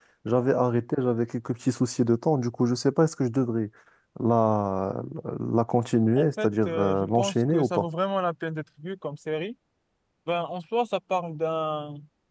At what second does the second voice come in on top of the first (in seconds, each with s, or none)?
6.2 s